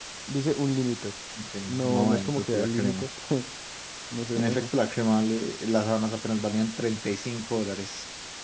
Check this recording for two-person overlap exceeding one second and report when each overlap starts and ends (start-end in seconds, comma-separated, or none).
1.7-3.1